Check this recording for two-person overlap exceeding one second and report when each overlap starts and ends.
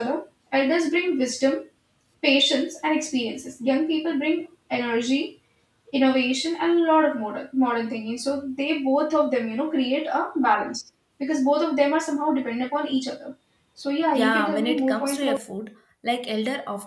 14.1-15.4

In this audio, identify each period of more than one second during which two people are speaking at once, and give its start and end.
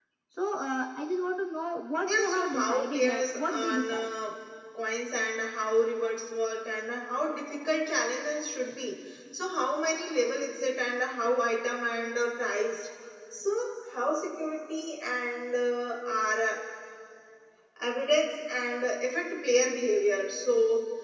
2.0-4.1

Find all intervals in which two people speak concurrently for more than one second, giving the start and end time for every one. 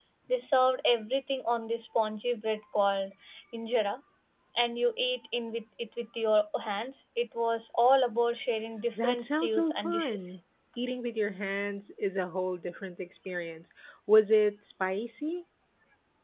8.9-10.3

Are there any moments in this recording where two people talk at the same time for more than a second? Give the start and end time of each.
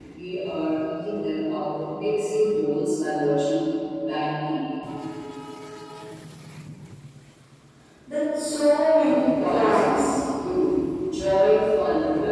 9.0-10.2

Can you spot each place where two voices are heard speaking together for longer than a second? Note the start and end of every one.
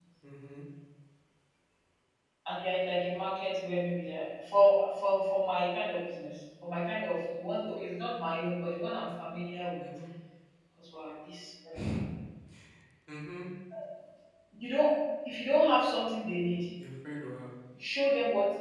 none

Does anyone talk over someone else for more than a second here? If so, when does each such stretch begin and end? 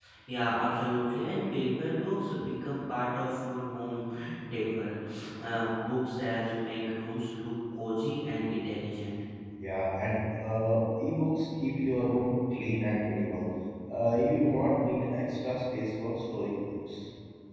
none

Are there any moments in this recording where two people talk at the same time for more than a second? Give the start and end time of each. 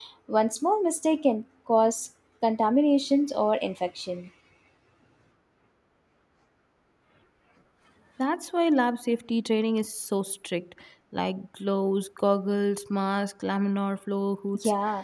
none

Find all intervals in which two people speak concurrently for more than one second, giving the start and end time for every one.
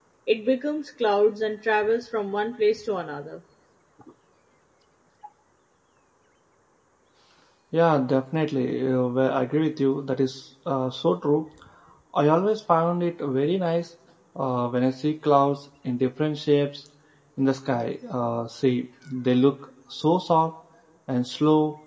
none

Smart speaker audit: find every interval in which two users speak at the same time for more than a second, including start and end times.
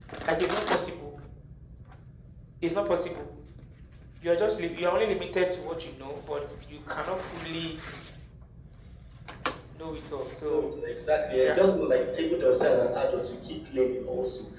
none

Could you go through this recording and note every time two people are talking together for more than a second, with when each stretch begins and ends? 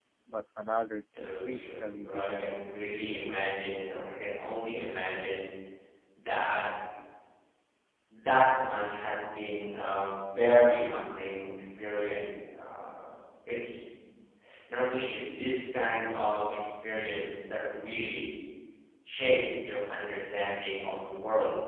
1.2-2.4

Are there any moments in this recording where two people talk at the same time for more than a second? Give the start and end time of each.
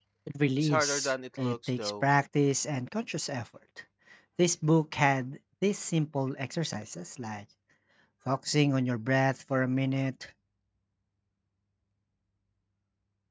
0.6-2.0

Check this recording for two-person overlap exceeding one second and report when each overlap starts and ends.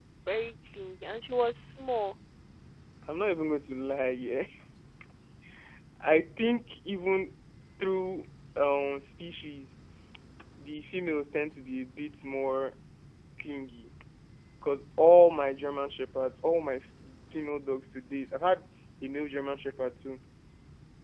none

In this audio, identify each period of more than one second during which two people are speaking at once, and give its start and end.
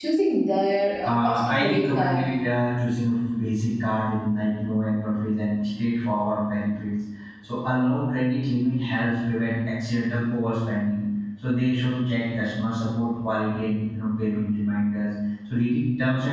1.0-2.2

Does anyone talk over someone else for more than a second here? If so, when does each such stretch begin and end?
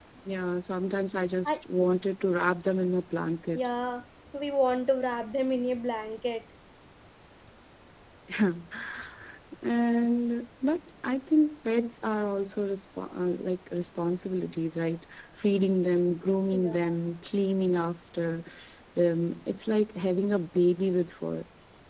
none

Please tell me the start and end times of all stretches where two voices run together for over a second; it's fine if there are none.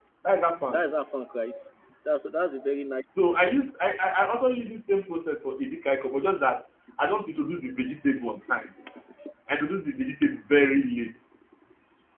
none

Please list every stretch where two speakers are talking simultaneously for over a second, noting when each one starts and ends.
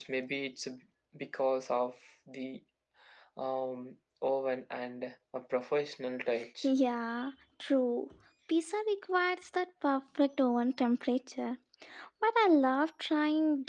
none

